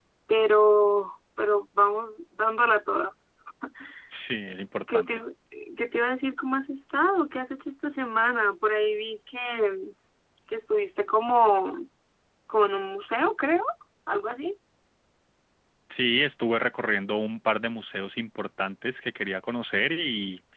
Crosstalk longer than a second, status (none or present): none